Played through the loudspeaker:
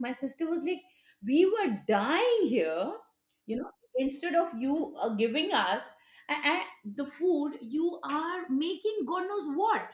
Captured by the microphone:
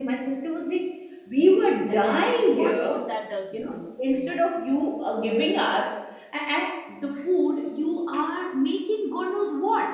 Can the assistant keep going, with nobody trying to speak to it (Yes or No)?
No